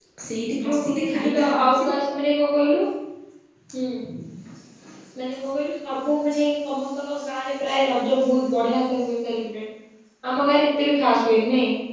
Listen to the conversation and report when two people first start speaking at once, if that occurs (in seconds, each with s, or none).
0.6 s